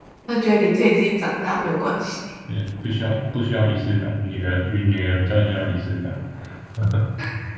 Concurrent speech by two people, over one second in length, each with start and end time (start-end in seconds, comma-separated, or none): none